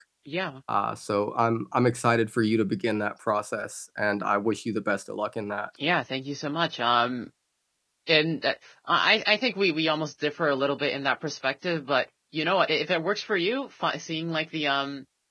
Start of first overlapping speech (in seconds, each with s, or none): none